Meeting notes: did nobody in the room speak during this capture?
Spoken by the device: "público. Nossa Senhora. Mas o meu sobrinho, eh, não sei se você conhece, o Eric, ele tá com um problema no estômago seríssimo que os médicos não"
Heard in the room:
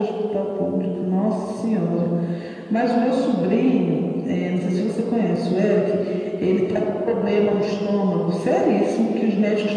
Yes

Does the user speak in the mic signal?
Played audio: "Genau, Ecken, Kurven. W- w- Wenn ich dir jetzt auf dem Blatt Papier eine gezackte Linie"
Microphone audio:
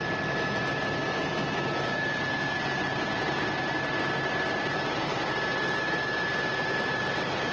No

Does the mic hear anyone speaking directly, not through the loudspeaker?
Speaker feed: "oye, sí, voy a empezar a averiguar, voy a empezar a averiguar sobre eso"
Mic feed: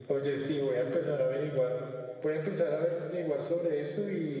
No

